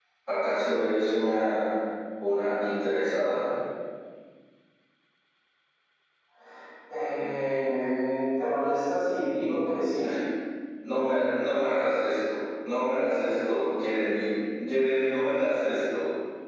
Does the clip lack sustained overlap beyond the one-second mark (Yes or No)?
Yes